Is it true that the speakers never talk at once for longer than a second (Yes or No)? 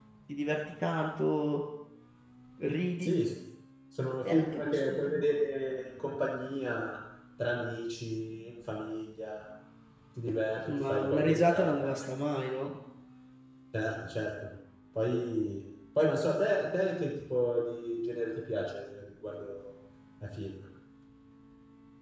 No